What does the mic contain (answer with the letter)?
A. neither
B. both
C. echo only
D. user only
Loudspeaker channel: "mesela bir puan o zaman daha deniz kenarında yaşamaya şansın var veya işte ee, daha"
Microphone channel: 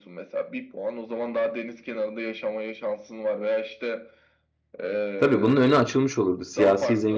B